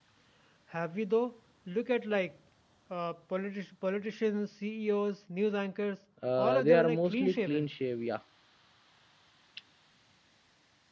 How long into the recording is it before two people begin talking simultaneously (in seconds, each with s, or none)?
6.2 s